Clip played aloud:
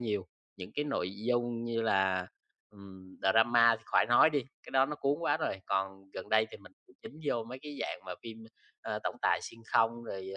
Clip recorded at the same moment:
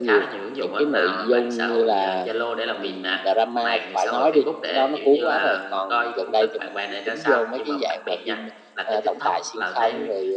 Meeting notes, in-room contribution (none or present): present